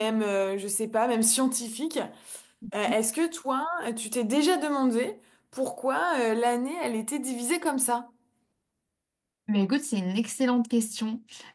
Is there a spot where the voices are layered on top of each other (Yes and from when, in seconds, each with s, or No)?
No